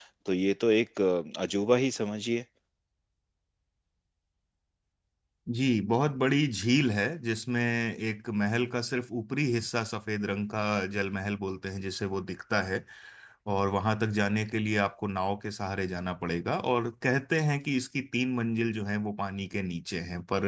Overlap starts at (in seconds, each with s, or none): none